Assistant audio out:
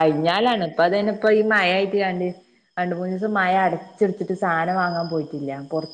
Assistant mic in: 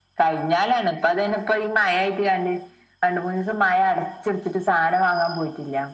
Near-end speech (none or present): none